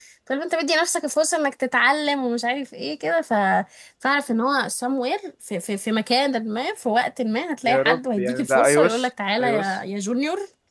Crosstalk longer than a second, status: present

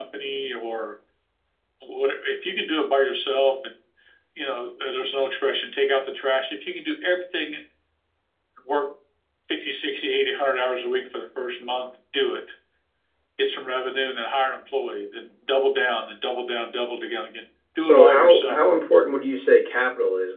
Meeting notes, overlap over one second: present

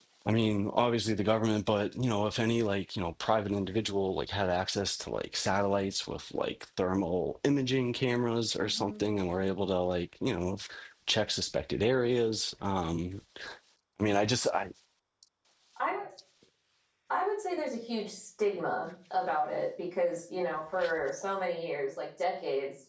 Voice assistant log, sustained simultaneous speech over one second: none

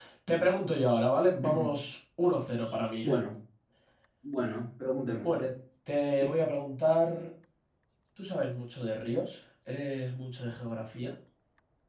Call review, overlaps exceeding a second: none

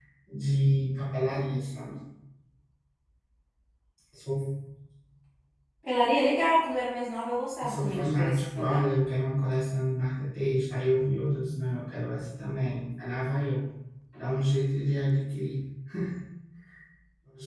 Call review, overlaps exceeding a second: present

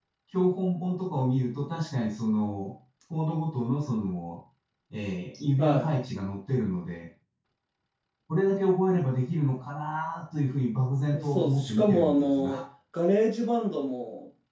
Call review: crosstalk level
present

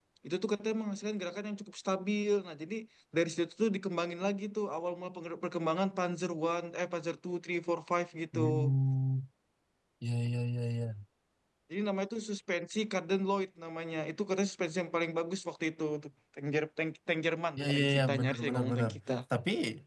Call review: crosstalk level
present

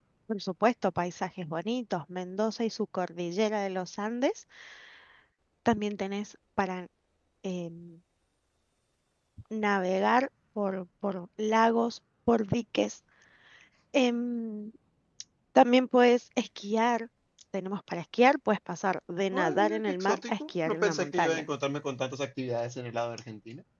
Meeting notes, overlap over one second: present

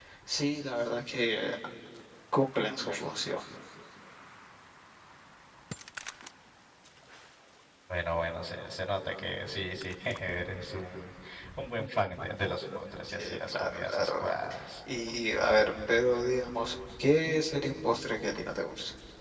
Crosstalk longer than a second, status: present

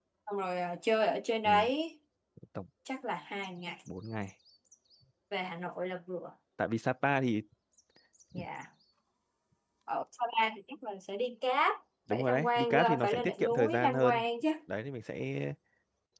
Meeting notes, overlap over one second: present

